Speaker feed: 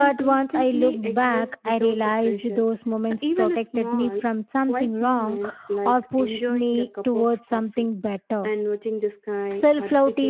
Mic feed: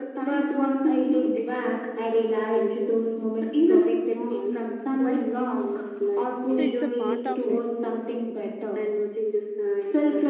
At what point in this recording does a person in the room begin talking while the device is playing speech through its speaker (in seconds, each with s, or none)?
6.5 s